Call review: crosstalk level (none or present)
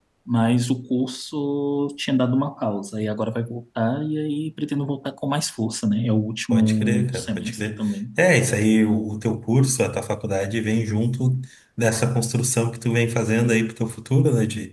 present